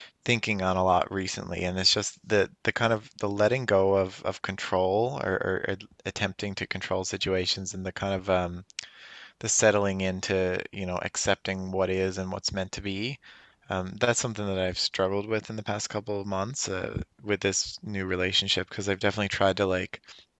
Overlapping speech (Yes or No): No